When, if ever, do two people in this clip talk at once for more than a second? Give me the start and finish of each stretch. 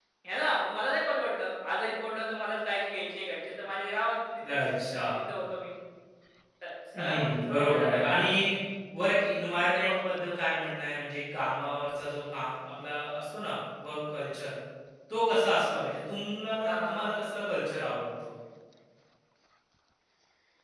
7.0-8.2

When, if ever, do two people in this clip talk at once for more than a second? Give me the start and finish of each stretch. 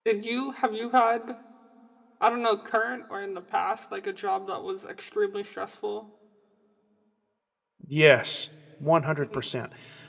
none

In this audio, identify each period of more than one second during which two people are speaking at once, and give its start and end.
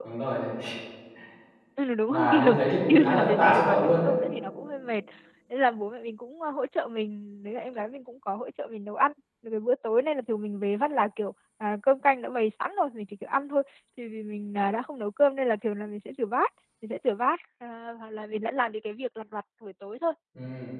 2.1-4.1

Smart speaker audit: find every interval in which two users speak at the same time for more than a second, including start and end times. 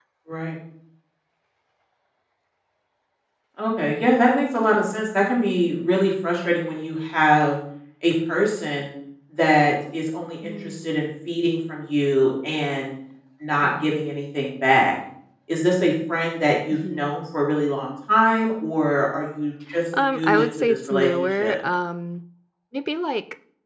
20.0-21.6

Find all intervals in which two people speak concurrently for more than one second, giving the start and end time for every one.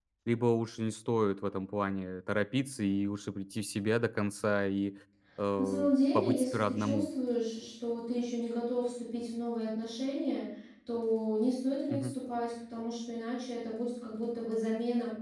5.6-7.1

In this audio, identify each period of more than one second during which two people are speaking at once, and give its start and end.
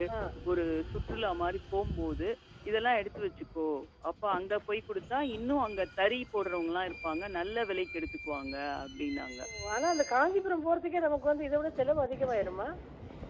none

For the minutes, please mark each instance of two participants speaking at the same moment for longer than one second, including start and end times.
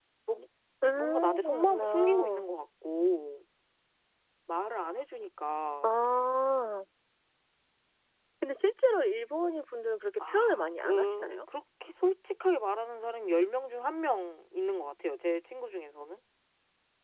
1.0-2.5, 10.2-11.4

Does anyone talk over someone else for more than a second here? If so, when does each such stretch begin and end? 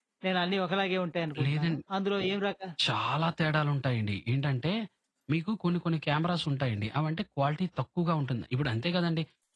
none

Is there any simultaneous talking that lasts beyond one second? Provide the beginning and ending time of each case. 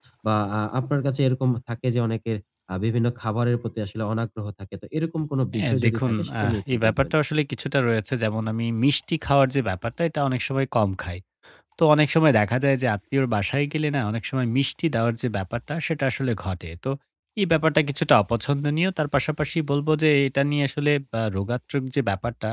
5.6-7.1

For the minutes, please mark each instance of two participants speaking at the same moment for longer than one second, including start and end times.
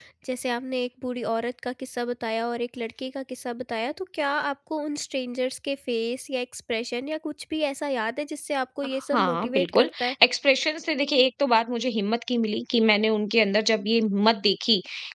8.9-10.2

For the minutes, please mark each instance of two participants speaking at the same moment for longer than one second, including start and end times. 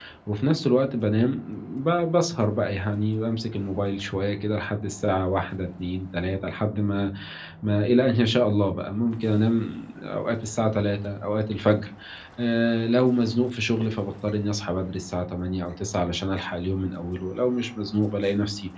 none

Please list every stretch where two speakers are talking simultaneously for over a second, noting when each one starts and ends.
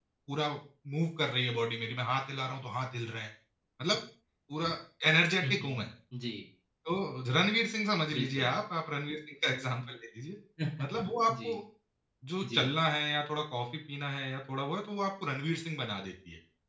none

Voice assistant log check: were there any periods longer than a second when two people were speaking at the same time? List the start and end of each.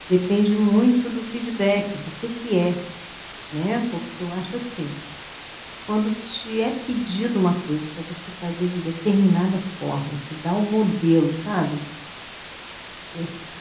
none

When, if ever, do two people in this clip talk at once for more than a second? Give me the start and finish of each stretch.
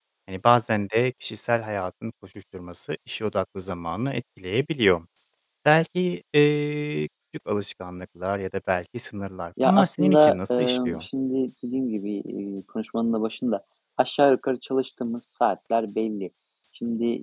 9.6-11.0

